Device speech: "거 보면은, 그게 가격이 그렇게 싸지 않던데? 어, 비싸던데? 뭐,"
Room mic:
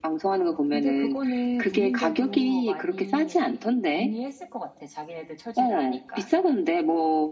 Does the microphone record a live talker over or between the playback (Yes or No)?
Yes